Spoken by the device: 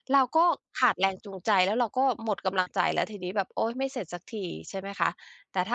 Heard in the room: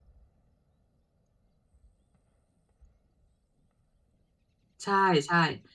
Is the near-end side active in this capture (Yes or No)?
Yes